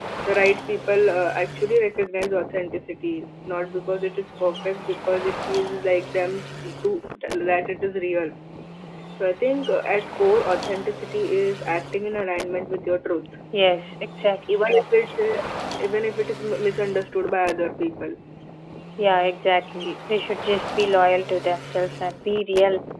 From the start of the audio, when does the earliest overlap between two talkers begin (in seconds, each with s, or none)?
none